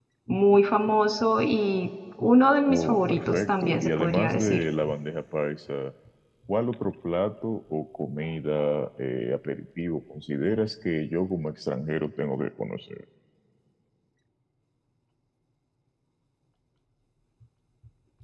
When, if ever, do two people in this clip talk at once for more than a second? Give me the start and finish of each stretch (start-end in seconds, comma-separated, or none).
2.7-4.6